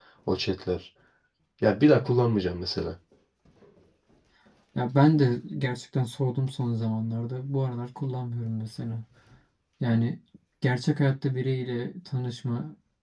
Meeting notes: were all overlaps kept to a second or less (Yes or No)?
Yes